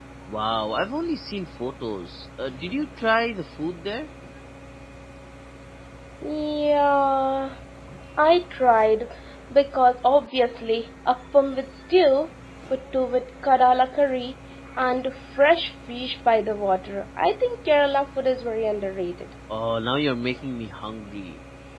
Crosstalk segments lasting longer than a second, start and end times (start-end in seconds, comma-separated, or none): none